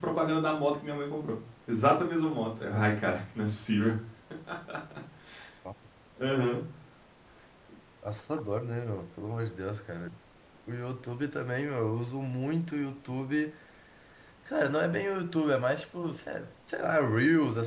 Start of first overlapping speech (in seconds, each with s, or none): none